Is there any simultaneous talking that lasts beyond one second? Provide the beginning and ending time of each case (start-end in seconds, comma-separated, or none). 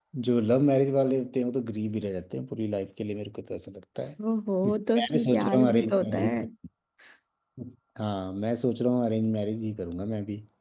4.7-6.4